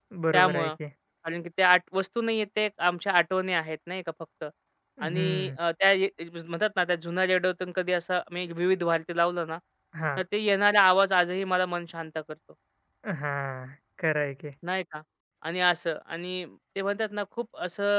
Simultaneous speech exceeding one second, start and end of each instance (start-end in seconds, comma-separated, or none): none